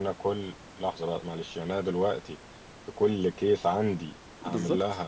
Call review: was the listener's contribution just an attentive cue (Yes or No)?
No